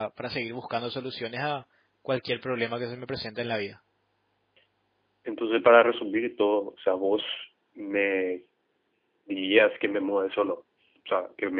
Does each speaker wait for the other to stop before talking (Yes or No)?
Yes